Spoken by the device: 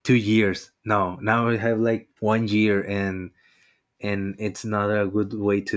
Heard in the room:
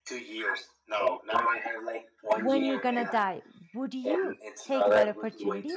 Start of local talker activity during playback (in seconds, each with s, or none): 2.3 s